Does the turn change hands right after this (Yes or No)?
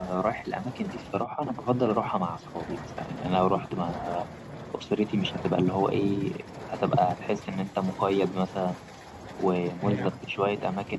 No